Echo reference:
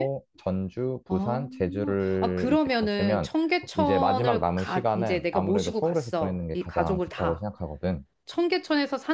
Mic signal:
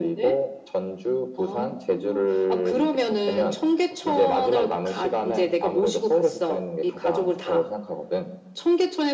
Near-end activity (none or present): none